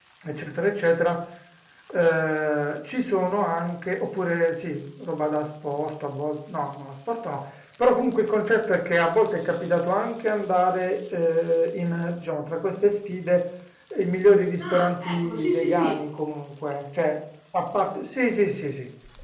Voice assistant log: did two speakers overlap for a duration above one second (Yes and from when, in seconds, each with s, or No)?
Yes, from 14.6 s